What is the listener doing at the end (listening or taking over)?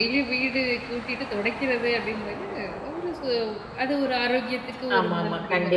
taking over